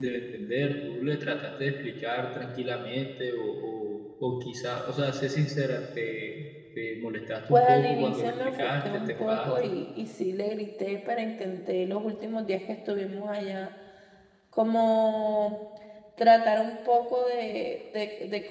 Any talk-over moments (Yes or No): Yes